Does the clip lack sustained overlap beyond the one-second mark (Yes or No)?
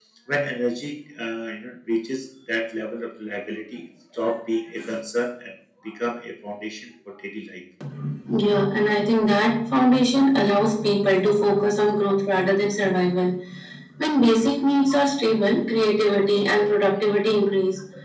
Yes